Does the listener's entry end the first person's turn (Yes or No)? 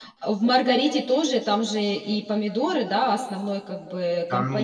Yes